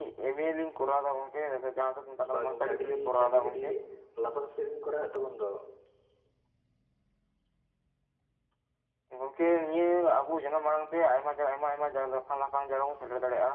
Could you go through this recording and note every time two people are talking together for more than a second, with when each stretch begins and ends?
2.3-3.6

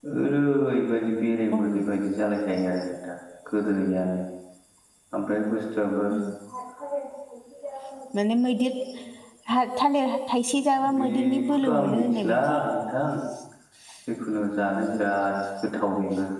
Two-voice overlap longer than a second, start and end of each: 11.0-12.6

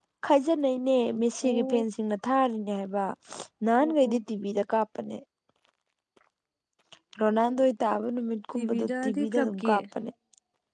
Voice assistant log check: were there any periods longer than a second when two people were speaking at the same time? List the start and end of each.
8.6-9.8

